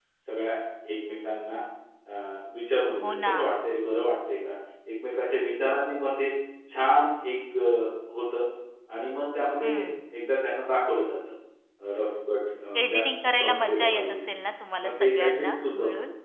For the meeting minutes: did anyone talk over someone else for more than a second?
Yes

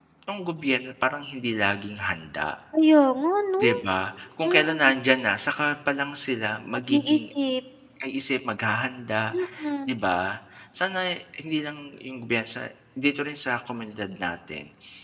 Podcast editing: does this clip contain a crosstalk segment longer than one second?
No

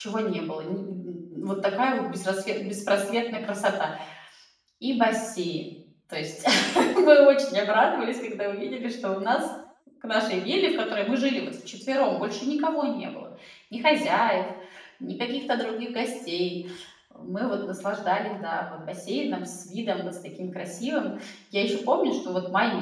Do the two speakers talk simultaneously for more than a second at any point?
No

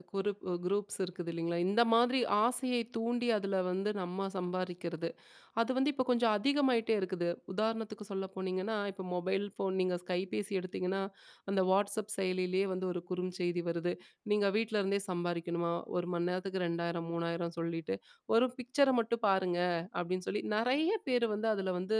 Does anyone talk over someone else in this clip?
No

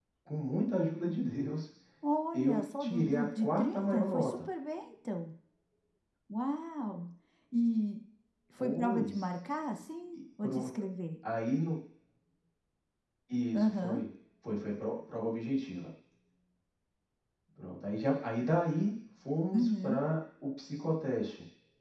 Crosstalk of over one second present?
Yes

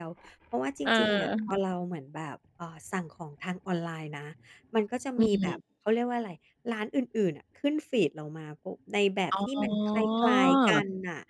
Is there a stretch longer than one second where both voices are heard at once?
Yes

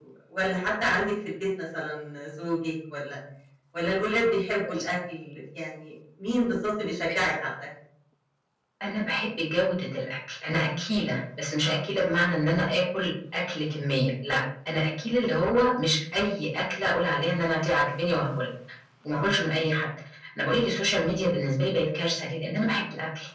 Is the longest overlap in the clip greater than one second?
No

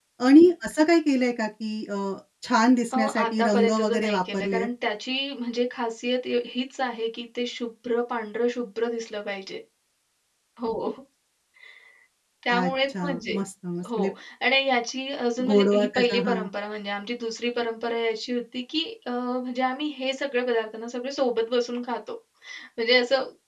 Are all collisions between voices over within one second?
No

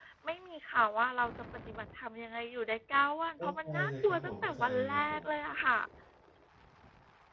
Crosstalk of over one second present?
Yes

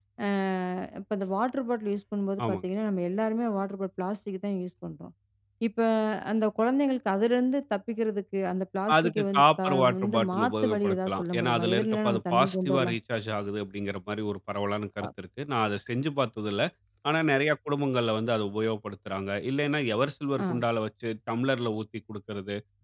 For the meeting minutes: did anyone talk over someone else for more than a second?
Yes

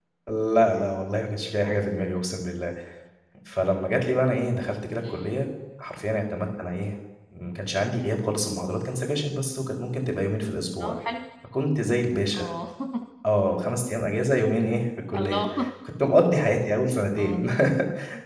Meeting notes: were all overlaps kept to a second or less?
Yes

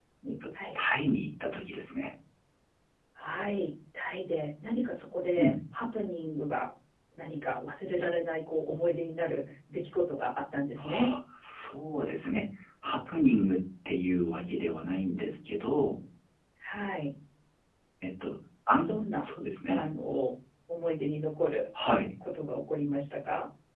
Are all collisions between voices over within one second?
Yes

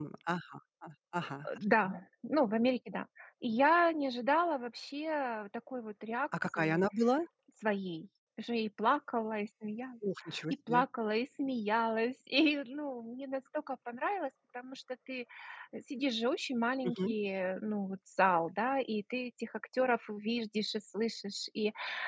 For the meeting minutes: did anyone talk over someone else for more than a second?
No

